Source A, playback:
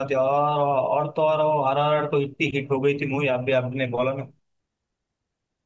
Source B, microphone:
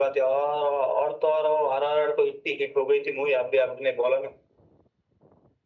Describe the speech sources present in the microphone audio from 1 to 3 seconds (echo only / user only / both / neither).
echo only